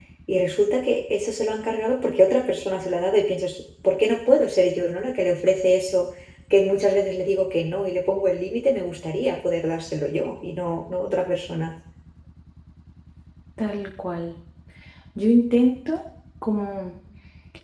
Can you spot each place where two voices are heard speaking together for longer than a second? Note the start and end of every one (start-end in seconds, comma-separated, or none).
none